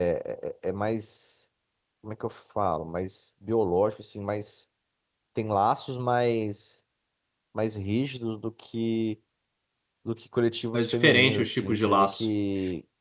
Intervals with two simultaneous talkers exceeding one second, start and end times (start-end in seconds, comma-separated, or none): 10.7-12.3